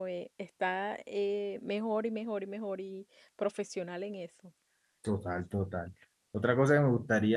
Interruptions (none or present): none